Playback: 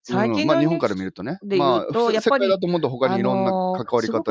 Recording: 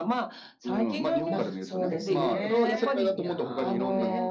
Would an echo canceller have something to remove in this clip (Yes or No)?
Yes